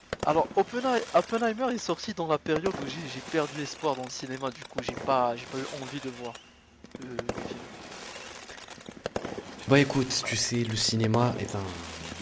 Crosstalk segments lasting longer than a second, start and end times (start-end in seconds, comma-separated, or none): none